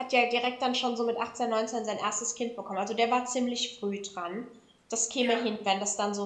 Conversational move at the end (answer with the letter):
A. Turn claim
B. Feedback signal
B